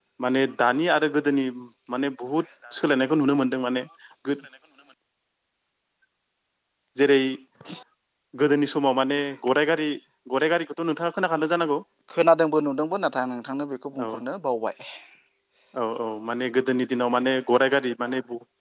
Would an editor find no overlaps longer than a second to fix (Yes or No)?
Yes